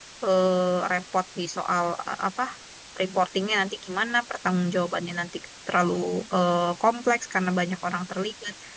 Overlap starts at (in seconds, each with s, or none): none